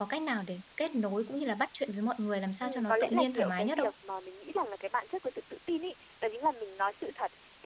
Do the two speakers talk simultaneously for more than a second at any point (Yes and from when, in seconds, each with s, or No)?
Yes, from 2.6 s